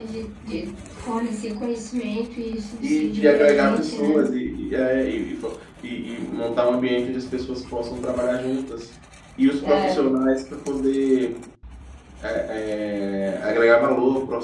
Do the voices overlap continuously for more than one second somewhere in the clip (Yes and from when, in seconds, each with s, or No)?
Yes, from 2.8 s